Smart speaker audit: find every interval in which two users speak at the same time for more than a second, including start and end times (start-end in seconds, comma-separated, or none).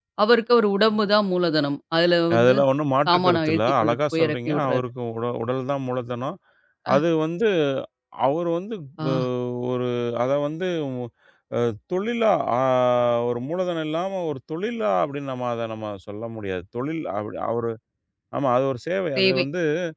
3.1-4.8